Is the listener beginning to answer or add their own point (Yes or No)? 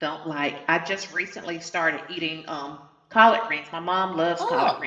No